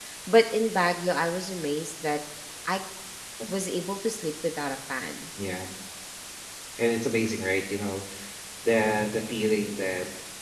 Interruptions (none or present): none